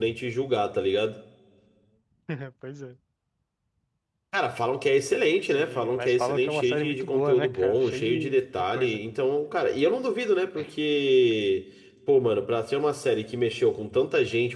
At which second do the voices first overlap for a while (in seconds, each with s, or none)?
5.5 s